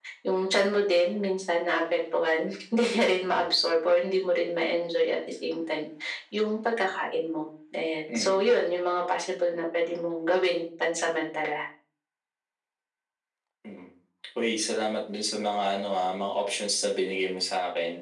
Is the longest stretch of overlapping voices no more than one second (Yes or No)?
Yes